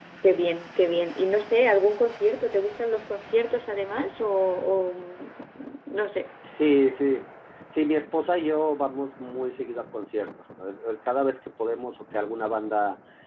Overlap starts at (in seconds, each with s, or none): none